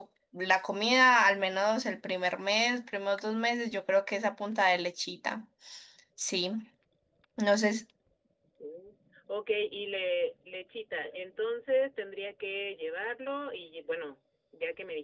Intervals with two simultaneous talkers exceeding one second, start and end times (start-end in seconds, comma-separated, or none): none